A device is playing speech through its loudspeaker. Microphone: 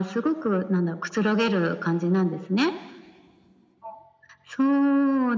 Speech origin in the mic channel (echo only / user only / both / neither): echo only